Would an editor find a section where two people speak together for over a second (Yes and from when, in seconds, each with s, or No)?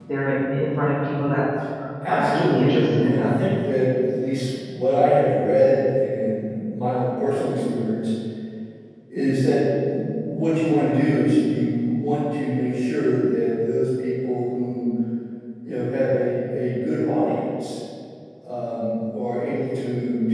Yes, from 2.1 s